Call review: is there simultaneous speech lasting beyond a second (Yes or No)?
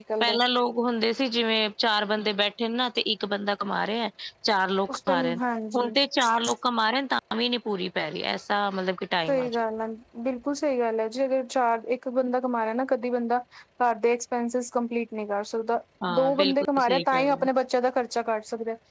Yes